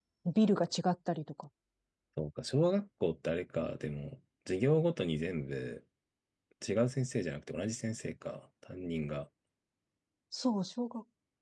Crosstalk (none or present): none